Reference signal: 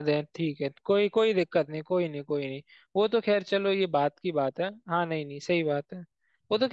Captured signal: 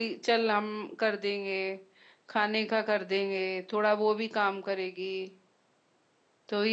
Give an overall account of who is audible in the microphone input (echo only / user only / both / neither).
user only